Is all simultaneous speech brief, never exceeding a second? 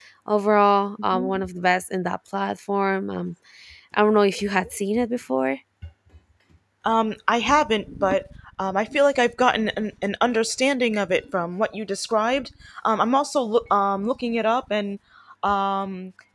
Yes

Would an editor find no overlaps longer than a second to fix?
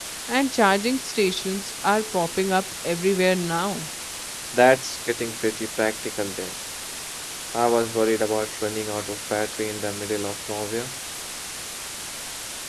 Yes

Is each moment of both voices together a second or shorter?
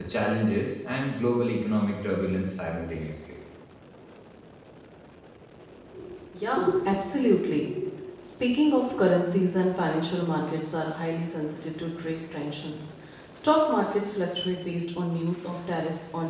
Yes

